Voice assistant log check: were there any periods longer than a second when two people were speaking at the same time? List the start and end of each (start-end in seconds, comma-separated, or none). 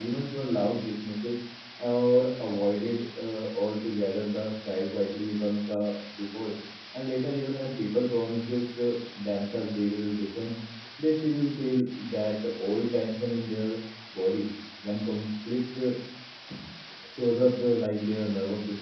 none